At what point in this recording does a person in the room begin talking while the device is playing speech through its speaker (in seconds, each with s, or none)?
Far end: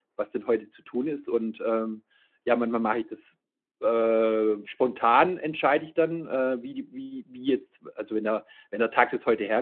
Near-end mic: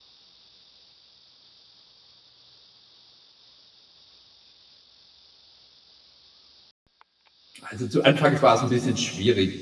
7.6 s